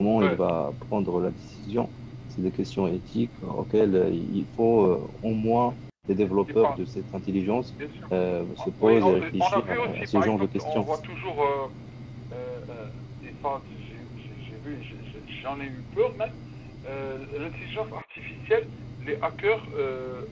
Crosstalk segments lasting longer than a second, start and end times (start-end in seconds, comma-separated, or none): 8.8-10.9